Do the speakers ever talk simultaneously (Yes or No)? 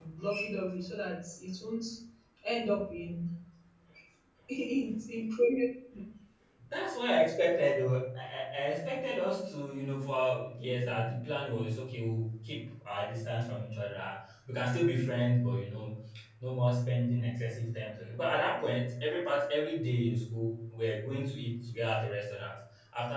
No